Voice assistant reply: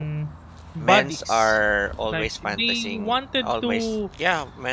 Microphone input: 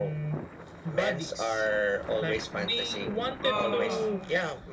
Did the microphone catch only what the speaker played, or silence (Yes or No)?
No